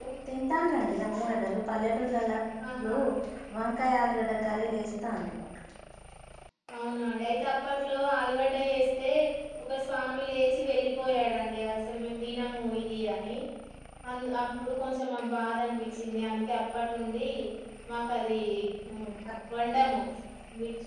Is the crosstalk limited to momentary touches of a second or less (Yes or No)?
Yes